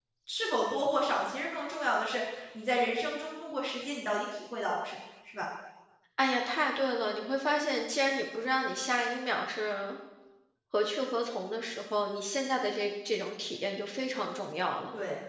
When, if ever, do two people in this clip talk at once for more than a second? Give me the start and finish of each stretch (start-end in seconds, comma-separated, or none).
none